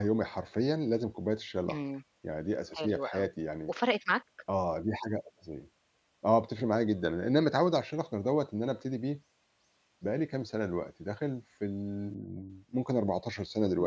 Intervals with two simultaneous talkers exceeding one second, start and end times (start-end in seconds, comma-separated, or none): none